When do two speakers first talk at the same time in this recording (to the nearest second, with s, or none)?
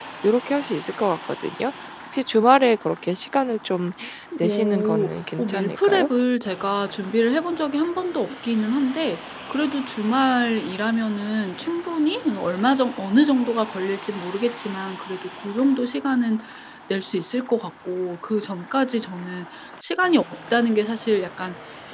4 s